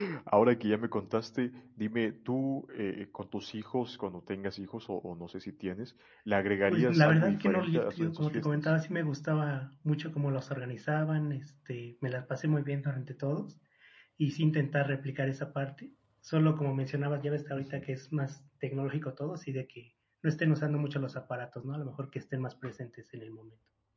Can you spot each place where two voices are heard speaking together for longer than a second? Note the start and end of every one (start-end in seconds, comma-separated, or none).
6.7-8.7